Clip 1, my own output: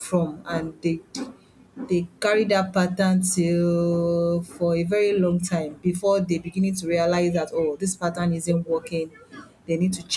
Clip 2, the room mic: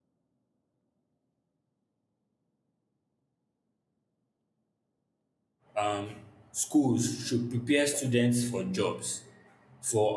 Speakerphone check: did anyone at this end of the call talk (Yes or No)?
Yes